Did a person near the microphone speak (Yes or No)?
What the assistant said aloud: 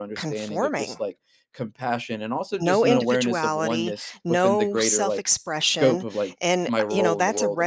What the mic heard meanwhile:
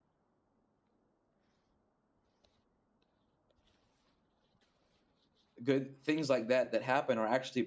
Yes